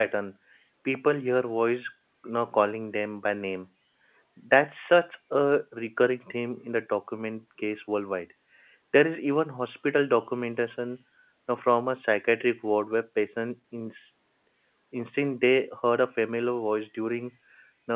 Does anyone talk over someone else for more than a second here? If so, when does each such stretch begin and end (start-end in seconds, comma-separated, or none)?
none